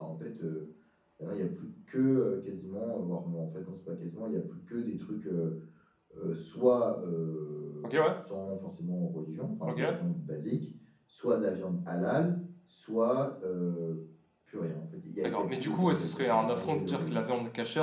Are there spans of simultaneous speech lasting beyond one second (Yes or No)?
Yes